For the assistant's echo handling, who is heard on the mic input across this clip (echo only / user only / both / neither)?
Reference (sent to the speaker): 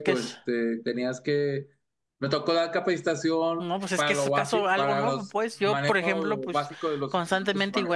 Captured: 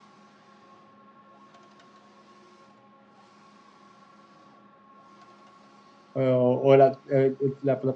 user only